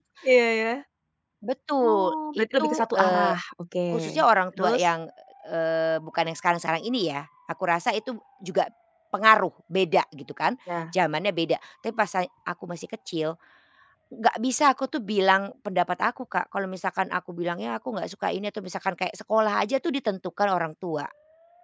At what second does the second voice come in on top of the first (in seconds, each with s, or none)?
1.9 s